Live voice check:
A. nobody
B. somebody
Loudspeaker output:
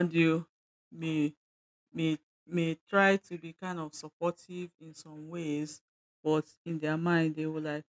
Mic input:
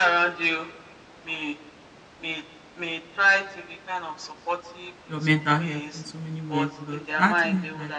B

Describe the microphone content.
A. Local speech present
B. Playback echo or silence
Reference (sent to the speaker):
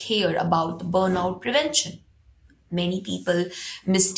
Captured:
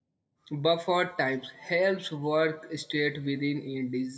A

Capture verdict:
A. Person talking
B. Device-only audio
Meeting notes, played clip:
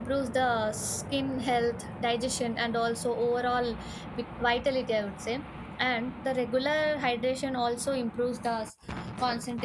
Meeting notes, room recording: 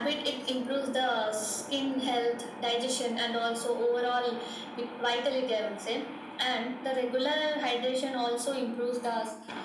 B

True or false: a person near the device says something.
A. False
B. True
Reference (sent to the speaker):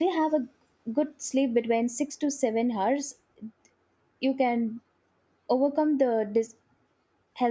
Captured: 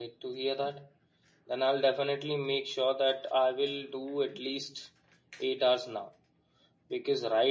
B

